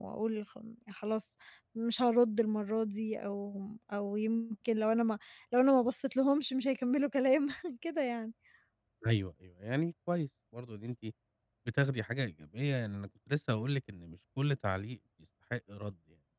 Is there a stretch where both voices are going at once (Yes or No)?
No